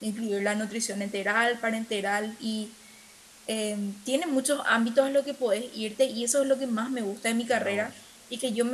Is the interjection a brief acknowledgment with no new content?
Yes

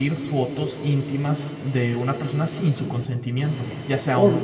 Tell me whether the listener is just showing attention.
No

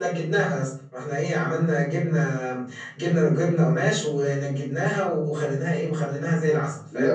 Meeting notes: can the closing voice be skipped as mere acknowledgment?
Yes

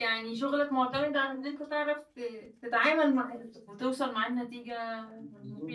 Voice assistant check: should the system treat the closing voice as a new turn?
Yes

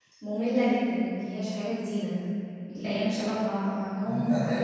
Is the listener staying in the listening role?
No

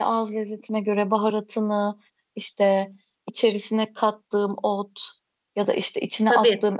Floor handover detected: No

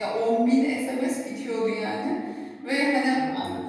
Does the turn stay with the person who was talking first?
Yes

